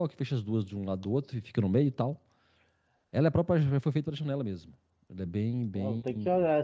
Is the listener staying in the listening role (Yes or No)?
No